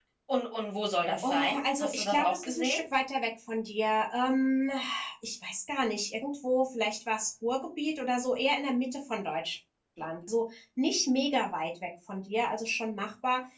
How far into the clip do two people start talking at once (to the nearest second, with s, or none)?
1 s